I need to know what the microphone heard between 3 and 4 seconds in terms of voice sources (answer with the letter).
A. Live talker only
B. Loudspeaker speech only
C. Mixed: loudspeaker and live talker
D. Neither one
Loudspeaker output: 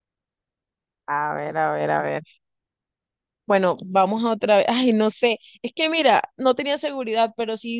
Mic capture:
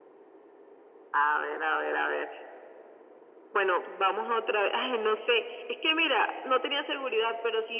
B